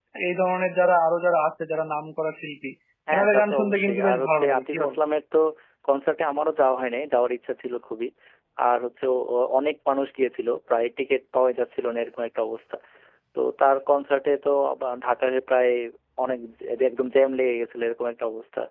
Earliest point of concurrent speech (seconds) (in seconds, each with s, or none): 3.1 s